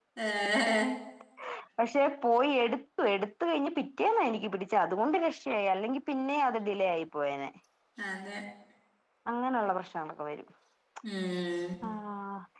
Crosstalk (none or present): none